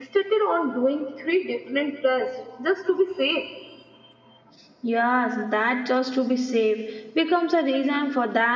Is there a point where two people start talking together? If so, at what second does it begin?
none

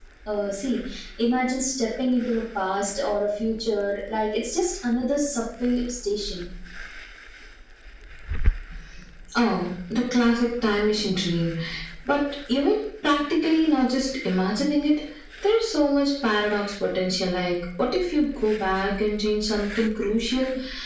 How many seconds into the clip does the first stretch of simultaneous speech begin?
none

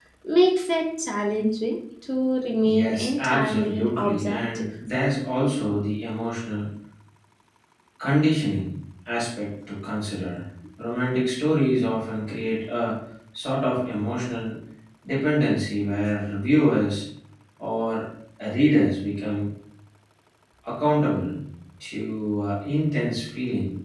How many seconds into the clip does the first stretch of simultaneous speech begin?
2.6 s

